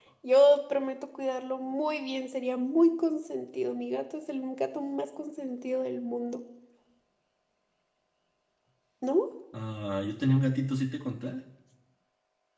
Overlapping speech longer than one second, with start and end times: none

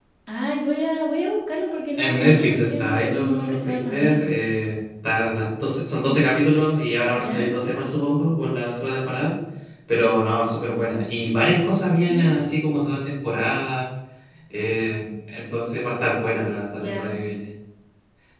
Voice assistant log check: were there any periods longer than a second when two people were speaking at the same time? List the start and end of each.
1.9-4.2

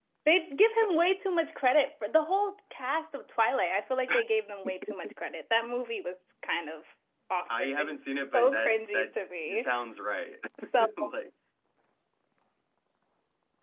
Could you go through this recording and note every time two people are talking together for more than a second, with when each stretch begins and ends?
8.3-9.7

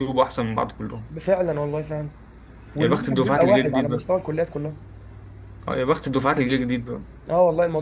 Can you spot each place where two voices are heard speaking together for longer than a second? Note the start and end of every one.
2.8-4.0

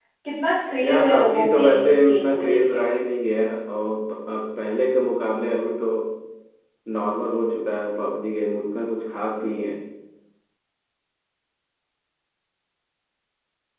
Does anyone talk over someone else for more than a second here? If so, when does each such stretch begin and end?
0.8-2.8

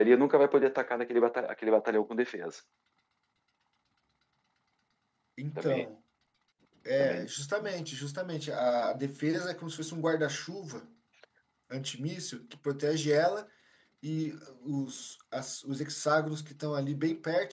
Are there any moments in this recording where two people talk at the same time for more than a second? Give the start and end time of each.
none

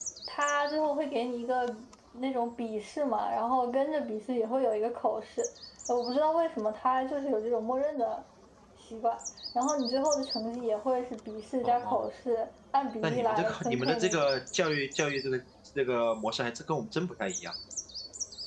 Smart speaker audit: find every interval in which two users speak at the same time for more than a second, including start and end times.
13.0-14.3

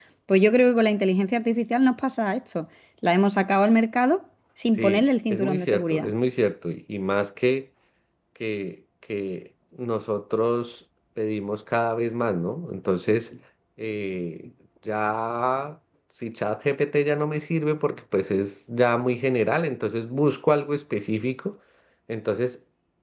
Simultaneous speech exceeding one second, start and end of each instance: 4.8-6.1

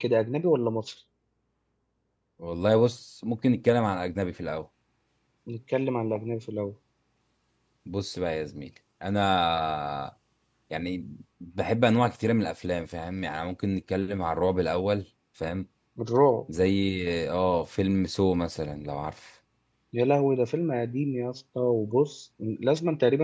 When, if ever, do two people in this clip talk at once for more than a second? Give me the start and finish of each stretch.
none

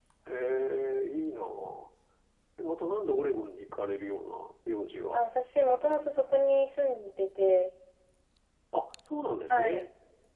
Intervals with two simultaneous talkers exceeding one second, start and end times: none

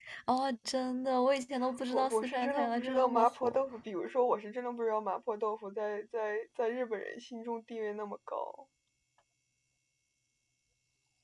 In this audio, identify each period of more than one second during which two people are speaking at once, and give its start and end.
1.9-3.6

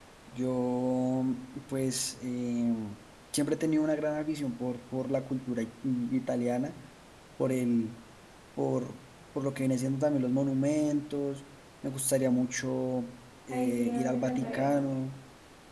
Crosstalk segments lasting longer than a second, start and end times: 13.5-15.0

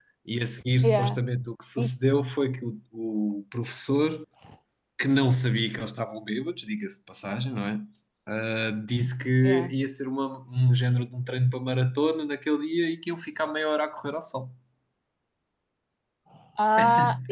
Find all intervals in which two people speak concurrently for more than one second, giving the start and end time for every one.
none

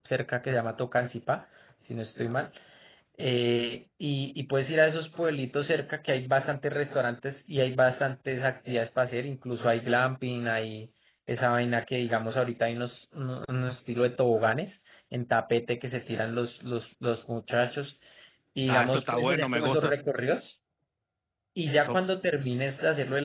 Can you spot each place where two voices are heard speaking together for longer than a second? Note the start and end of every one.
18.7-19.9

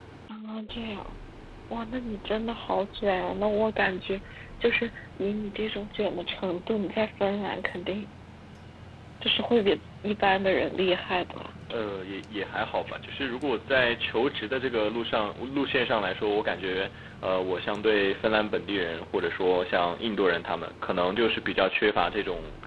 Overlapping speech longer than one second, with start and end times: none

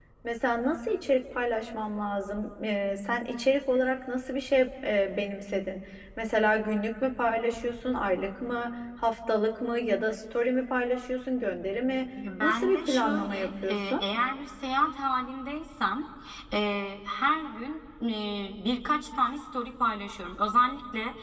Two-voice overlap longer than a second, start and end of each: 12.4-14.0

